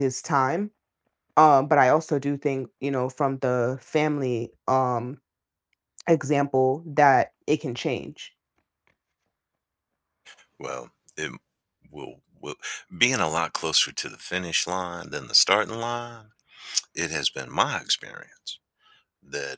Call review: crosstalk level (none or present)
none